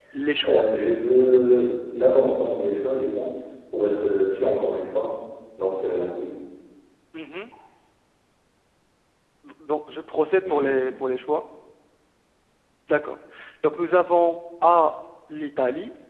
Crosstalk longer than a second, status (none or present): none